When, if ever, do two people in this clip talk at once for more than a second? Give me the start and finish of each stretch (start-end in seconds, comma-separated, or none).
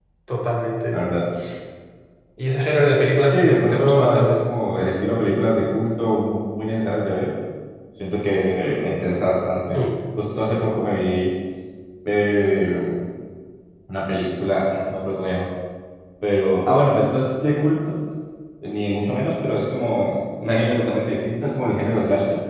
3.3-4.5